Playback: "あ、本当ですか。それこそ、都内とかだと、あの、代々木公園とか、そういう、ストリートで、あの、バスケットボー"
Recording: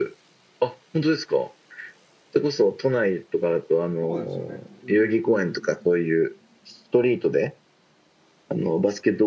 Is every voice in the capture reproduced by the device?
No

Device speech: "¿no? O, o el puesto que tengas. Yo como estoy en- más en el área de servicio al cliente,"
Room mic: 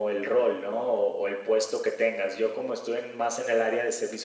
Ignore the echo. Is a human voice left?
No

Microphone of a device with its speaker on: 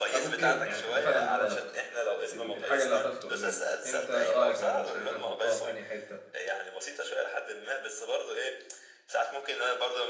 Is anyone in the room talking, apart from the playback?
Yes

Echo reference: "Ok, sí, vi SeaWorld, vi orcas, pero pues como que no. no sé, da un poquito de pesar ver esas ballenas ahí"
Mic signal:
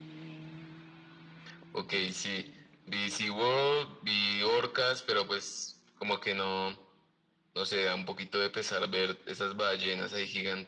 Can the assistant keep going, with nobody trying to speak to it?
Yes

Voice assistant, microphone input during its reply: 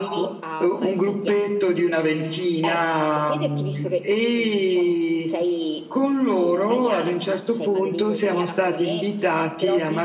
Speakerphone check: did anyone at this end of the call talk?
No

